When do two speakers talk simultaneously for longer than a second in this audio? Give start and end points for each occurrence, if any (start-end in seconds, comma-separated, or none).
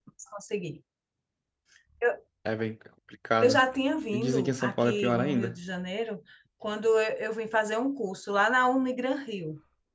4.1-5.5